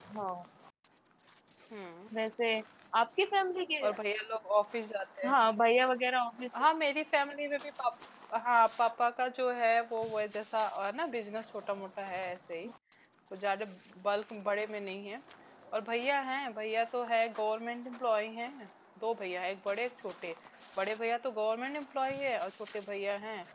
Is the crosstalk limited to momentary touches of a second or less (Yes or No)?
Yes